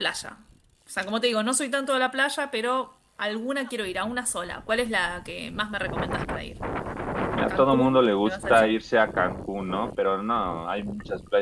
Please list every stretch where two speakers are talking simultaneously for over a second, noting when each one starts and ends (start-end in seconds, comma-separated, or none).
7.5-8.7